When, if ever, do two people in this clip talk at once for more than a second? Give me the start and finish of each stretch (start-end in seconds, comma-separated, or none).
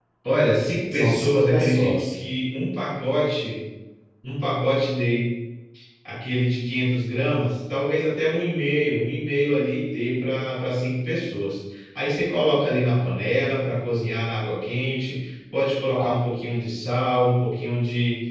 0.9-2.1